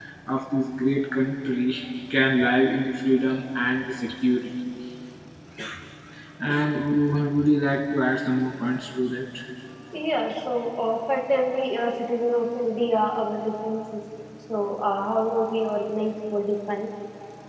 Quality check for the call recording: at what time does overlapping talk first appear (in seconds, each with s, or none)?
none